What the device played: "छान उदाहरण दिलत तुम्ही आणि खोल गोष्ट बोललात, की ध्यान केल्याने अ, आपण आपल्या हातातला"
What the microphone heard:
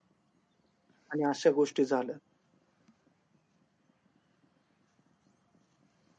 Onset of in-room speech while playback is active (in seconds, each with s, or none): 1.1 s